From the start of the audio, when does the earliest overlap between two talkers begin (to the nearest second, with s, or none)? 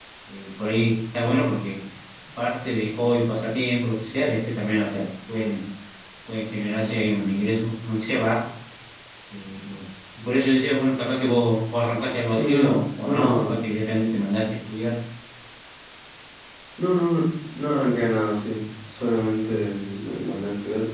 12 s